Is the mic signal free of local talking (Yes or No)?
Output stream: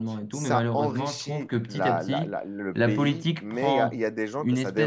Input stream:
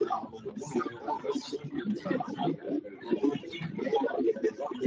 Yes